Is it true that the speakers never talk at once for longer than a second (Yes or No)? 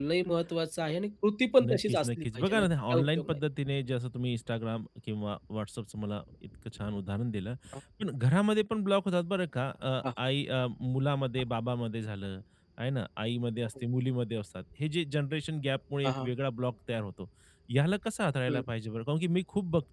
No